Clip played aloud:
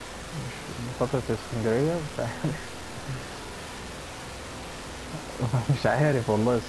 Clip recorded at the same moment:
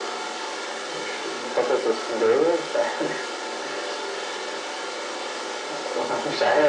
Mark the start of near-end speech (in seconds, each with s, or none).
none